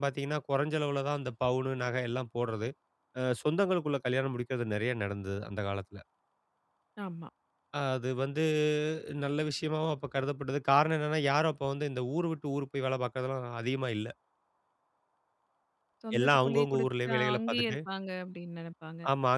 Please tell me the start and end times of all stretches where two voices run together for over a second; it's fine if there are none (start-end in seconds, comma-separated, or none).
16.2-17.8